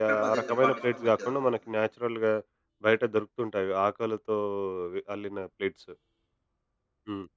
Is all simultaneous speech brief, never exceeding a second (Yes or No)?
No